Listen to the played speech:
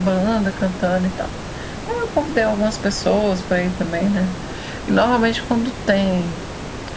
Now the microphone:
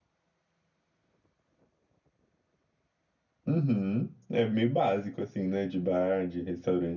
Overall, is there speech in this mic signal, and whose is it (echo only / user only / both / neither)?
user only